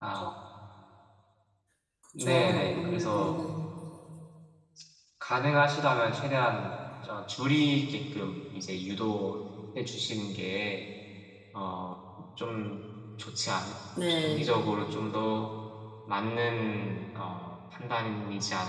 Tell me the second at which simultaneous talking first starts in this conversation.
2 s

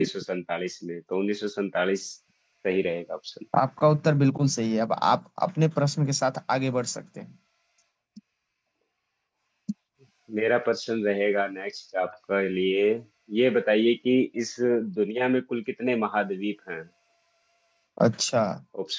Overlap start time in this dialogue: none

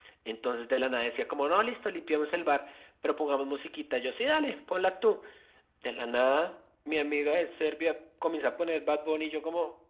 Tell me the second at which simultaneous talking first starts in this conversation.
none

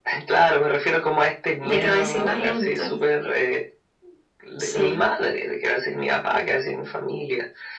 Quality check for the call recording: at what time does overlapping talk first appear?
2 s

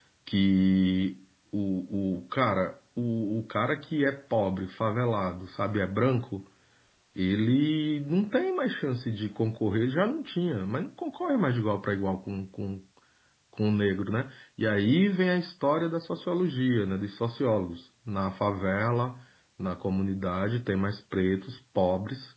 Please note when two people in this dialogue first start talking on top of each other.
none

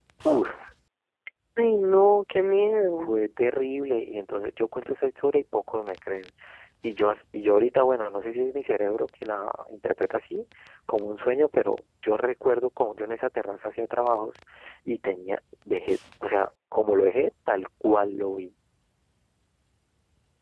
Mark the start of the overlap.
none

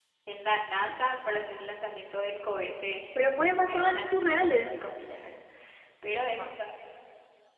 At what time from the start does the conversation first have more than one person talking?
3 s

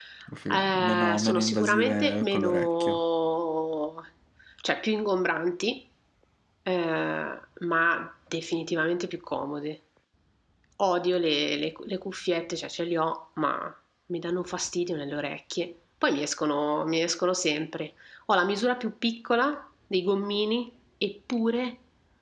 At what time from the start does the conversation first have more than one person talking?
1 s

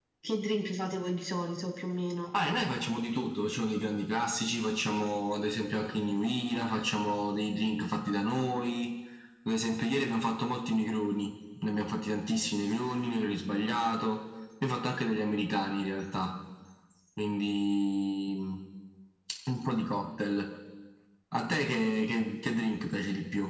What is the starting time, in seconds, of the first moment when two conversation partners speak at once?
none

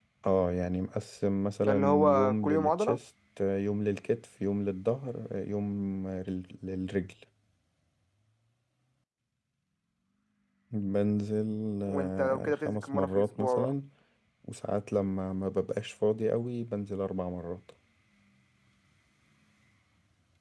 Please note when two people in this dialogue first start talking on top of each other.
2 s

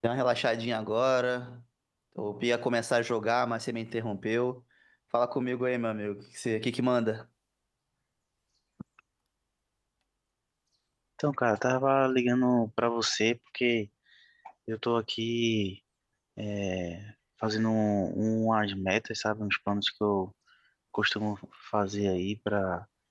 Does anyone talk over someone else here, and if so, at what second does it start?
none

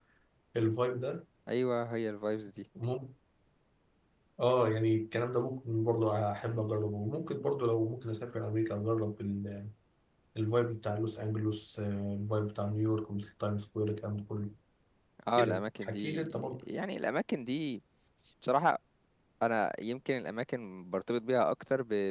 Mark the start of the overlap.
15 s

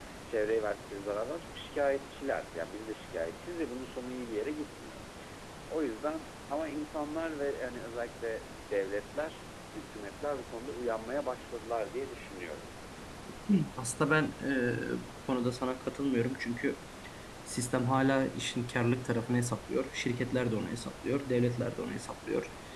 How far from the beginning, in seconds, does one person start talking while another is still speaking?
none

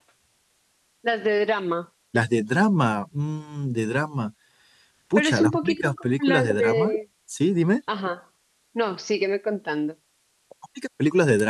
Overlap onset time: 5 s

